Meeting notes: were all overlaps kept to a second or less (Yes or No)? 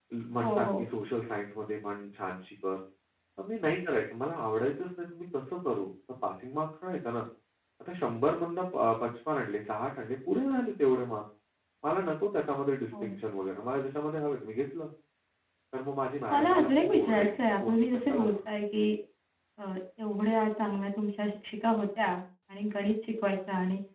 No